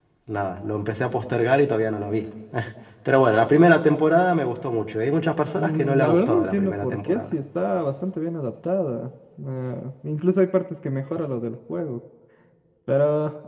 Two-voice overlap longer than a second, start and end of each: 5.6-7.3

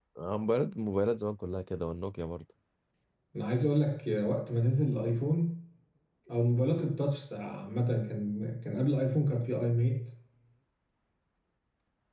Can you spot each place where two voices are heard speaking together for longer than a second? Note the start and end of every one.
none

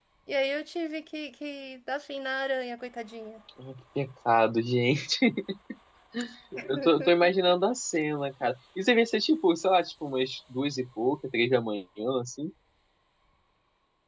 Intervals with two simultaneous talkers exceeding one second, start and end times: none

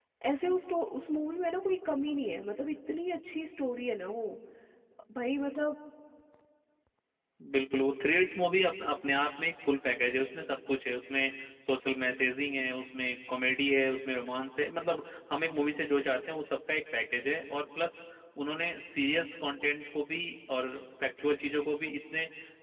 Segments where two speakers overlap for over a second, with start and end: none

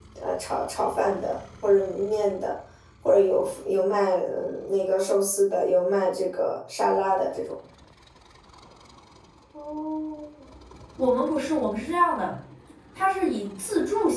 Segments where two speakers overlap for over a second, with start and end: none

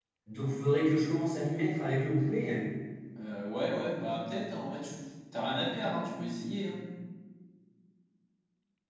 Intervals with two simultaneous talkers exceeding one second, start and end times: none

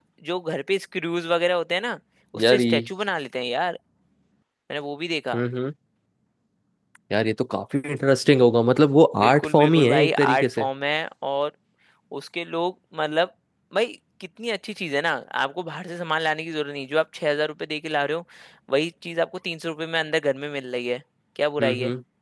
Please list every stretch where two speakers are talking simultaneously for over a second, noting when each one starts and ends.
9.2-10.7

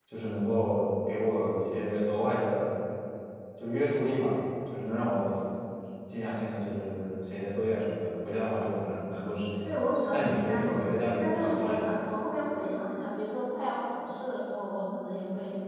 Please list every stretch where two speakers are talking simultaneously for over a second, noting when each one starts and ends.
10.1-12.0

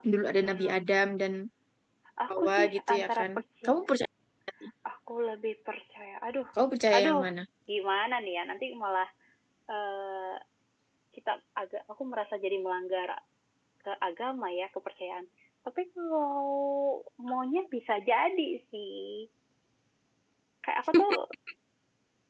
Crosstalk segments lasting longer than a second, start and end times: 2.3-3.9

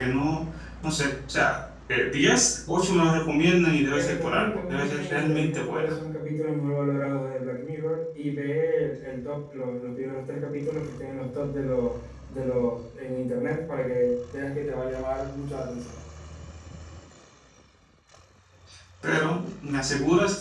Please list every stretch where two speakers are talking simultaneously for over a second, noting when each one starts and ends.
3.9-5.9

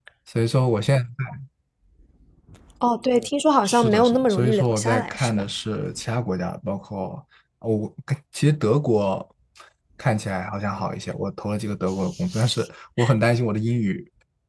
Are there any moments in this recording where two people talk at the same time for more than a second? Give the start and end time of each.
3.6-5.4

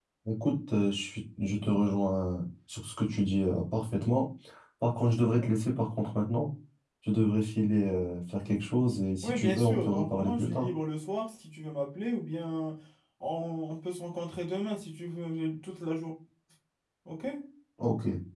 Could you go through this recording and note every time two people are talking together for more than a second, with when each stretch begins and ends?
9.2-10.7

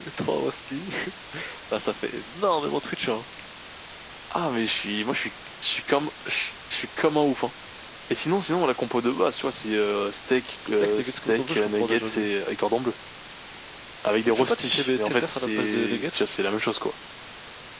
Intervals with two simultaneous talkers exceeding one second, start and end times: 10.8-12.3, 14.2-16.2

